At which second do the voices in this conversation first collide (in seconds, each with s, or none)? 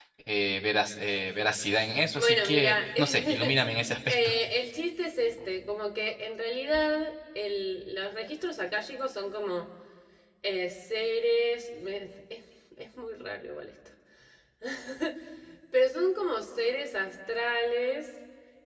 2.1 s